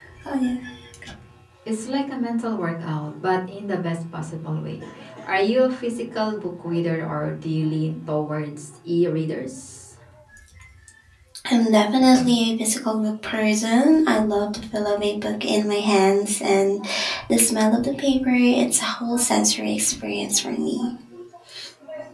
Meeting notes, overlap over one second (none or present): none